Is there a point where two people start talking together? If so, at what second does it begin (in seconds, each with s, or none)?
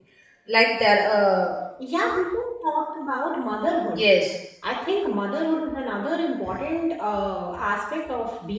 none